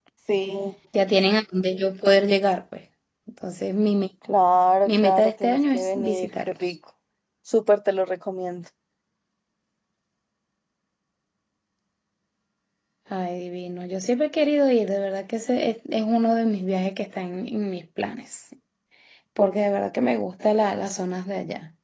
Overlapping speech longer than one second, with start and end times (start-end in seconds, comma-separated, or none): 4.9-6.5